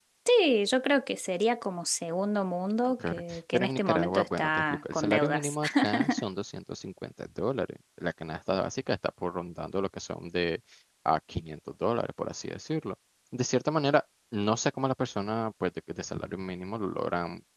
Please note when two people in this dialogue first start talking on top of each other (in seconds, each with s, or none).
3.0 s